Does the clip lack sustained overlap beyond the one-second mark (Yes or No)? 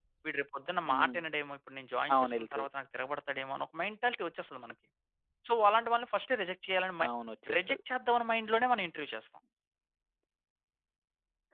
Yes